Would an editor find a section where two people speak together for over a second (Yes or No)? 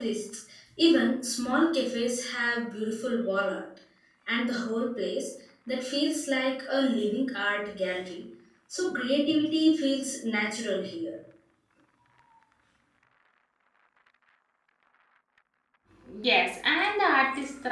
No